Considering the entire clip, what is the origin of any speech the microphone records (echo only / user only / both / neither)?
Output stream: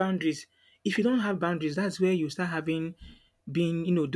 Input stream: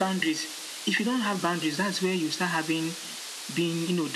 echo only